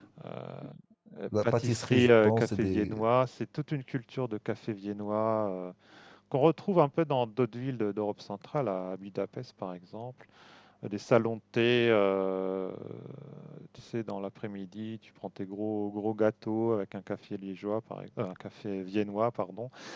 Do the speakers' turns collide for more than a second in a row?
Yes, from 1.4 s

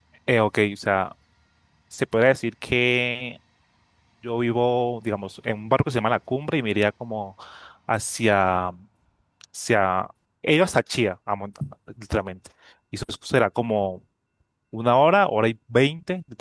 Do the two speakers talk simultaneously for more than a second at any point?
No

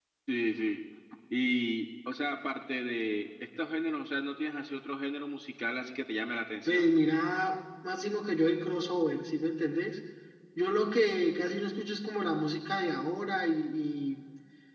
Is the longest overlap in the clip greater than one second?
No

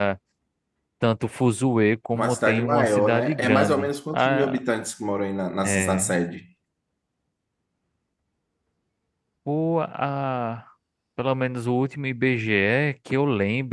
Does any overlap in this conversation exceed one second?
Yes, from 2.1 s

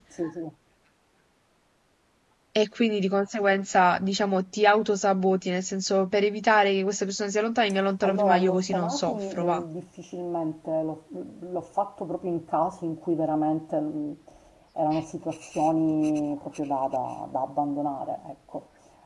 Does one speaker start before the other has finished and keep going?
Yes, from 8.0 s

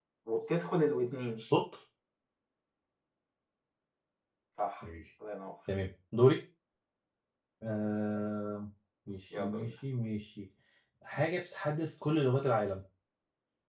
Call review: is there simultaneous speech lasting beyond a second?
No

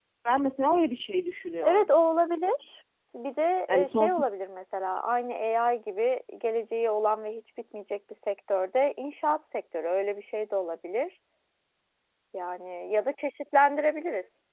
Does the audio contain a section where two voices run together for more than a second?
No

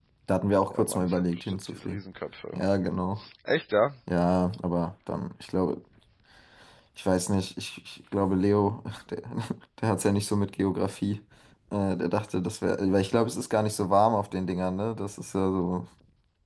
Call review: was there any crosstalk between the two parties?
Yes, from 0.7 s

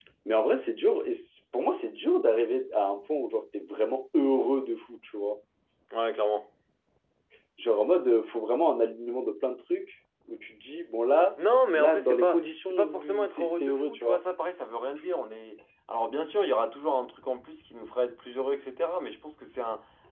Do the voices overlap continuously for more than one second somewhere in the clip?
Yes, from 11.8 s

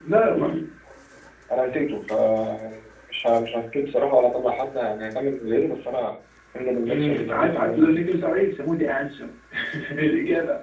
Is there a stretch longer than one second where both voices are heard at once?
Yes, from 6.9 s

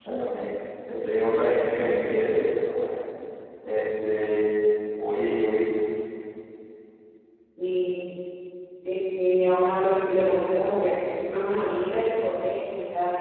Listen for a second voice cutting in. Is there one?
No

